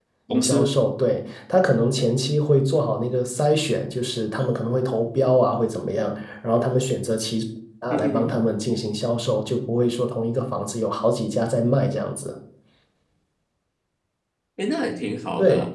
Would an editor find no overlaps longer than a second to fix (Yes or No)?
Yes